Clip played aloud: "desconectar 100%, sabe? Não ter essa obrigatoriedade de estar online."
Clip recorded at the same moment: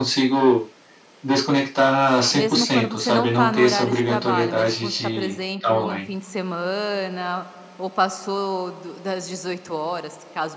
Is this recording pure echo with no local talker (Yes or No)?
No